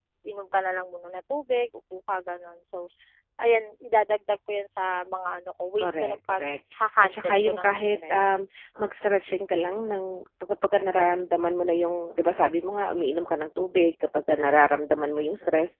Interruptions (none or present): present